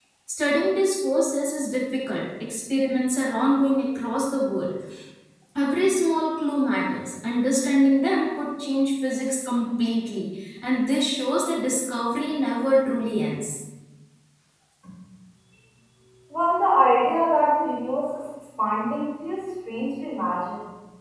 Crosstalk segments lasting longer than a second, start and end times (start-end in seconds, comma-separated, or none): none